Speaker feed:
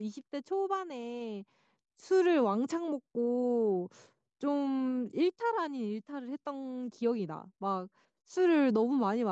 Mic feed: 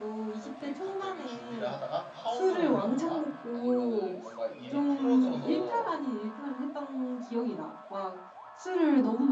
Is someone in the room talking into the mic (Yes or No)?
Yes